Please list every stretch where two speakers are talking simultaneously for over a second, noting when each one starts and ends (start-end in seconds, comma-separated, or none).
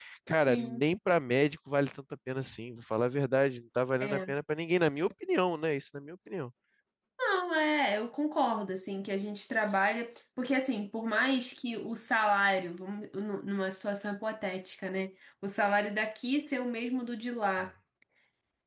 none